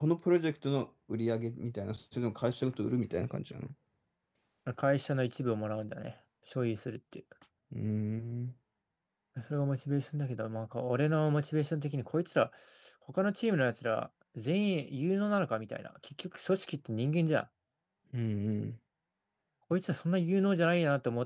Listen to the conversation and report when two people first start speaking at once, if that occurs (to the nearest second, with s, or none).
none